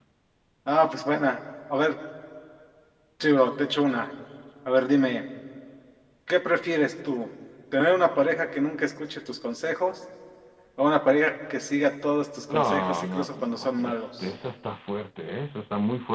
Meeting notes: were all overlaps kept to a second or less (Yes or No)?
No